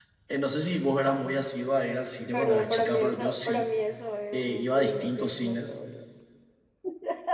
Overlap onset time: 2.3 s

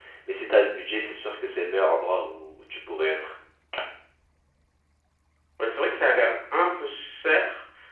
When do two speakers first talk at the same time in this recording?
none

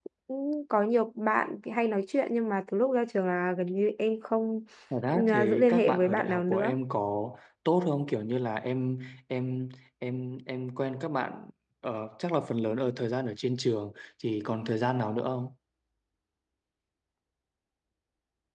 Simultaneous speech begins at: 5.3 s

